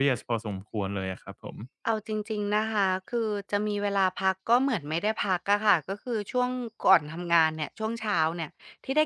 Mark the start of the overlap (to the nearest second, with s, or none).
none